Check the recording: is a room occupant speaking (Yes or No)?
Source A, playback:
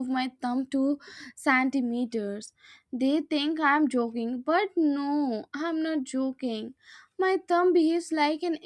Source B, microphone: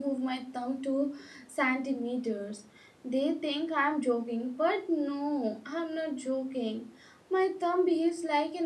No